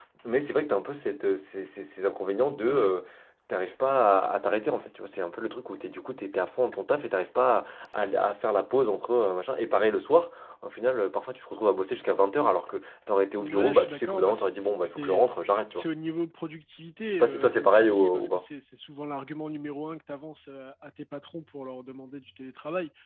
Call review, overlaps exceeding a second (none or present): present